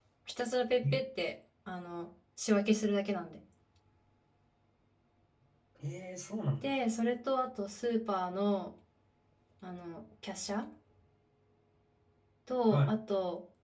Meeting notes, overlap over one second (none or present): none